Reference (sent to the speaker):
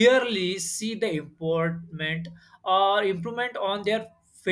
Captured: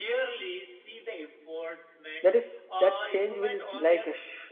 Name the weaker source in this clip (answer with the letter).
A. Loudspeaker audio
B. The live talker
A